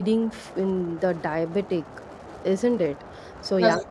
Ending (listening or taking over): listening